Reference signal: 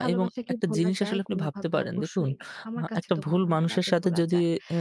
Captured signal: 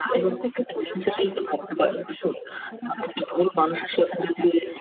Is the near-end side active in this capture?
No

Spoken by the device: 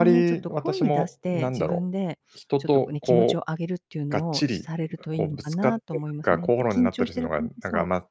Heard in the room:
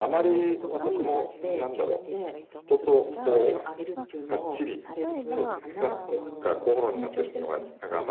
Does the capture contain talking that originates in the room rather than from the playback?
Yes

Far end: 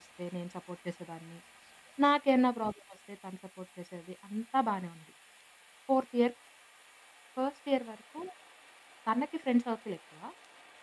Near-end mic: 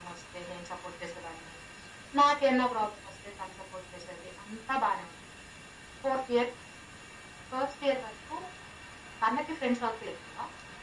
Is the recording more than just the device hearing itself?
No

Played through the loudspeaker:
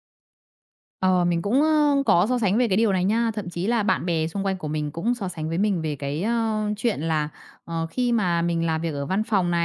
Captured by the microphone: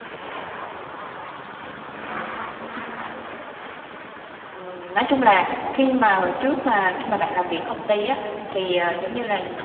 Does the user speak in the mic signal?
Yes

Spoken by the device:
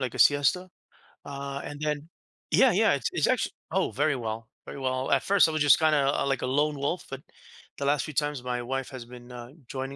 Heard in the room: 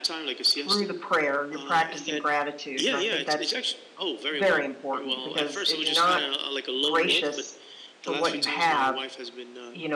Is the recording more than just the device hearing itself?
Yes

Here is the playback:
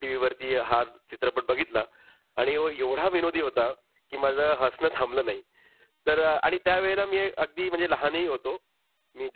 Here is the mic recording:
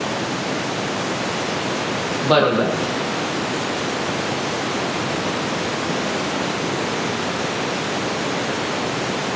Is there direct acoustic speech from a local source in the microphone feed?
Yes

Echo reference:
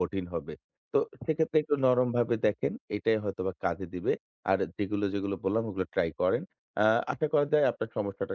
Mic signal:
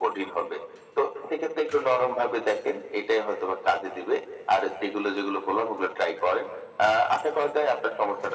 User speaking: No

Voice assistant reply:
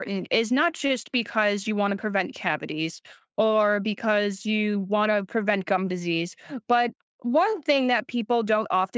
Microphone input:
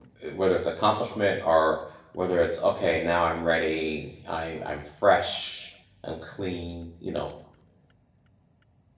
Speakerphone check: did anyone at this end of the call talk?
Yes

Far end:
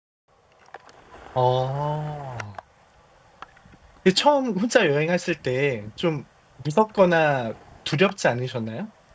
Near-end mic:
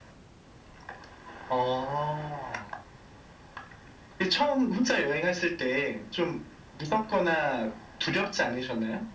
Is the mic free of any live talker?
Yes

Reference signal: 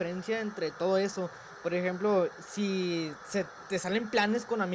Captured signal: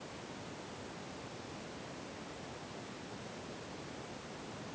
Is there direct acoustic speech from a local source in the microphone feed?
No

